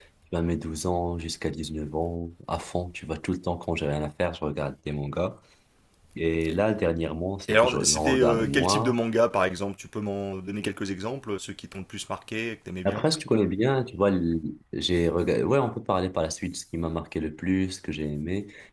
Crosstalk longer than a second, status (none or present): present